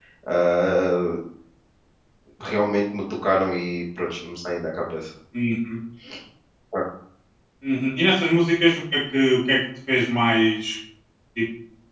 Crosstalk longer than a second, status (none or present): none